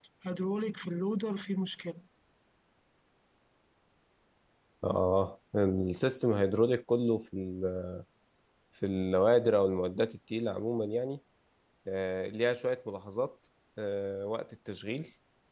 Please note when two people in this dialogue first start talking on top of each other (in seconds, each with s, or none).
none